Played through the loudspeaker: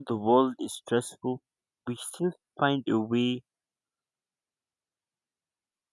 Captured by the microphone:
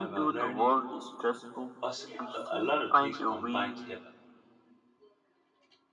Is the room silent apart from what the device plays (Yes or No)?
No